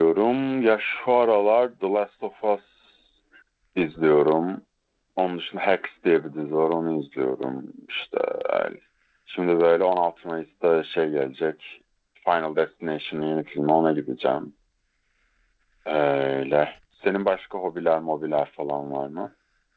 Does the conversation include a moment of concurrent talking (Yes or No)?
No